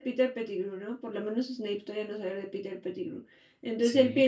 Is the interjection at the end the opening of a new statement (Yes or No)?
No